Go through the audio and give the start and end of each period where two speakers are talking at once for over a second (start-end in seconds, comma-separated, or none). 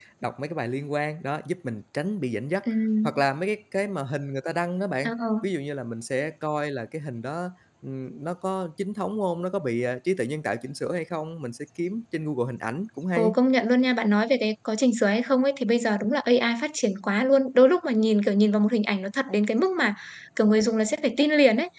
none